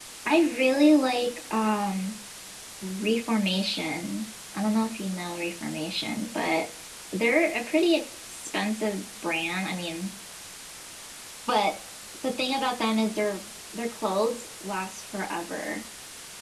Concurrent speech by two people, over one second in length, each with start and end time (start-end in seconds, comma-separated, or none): none